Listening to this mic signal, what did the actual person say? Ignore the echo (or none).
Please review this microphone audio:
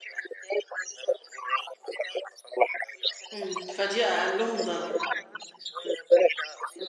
إمم فدي أقلهم ضرر.